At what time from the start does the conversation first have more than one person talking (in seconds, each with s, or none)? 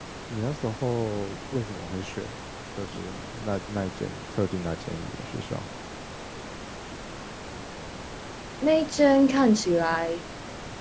none